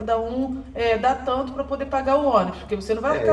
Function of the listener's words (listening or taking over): taking over